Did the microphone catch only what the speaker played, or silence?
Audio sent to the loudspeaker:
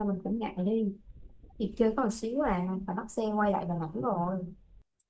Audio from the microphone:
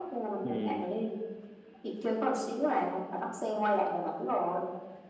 No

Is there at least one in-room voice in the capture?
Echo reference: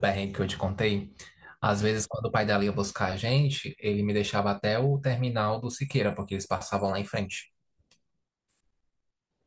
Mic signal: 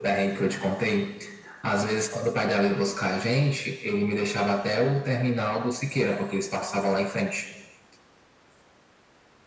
No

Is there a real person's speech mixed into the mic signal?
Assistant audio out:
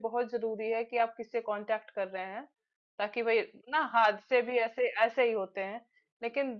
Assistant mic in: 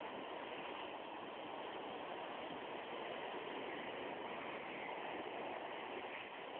No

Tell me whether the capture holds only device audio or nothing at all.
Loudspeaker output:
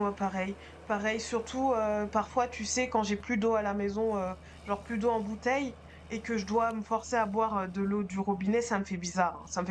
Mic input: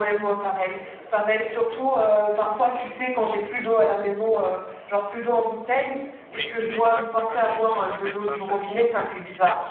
No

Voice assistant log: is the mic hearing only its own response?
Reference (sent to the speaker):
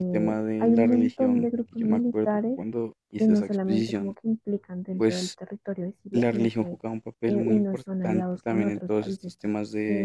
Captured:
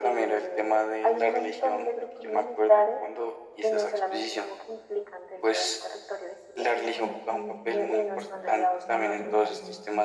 No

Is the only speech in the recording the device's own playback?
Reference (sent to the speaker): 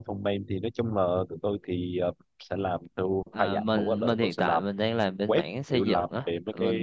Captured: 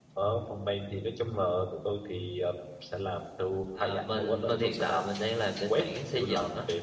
Yes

